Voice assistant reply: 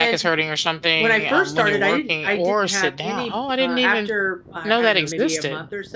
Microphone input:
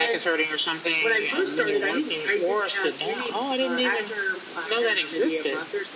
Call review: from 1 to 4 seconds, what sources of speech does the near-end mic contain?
echo only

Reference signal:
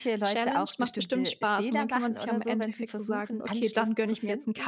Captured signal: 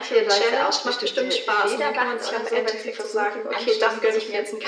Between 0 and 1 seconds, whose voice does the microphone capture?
echo only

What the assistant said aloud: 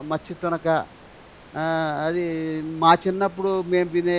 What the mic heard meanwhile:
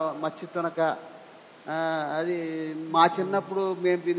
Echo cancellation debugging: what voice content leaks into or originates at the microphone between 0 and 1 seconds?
echo only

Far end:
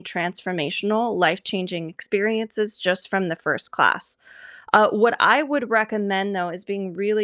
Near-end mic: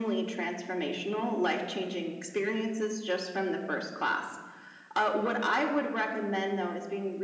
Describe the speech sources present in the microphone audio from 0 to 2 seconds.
echo only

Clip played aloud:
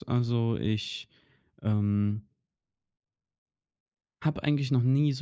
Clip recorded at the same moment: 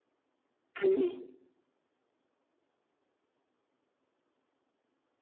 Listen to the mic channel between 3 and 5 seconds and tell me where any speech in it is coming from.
neither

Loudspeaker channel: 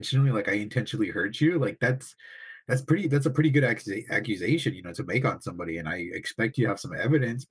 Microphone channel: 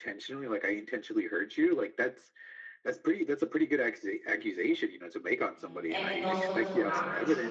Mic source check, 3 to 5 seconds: echo only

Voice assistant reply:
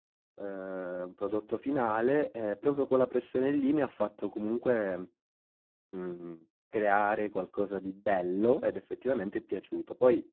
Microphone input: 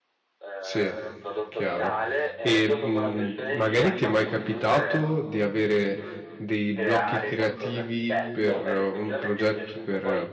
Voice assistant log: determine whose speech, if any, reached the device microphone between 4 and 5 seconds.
both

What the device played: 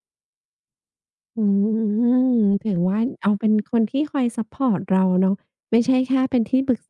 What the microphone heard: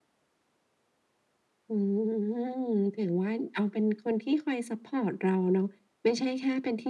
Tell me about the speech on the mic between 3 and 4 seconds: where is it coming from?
echo only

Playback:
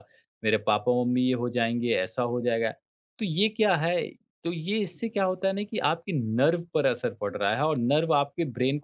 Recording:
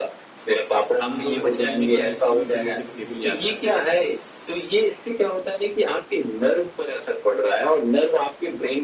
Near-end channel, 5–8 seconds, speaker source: echo only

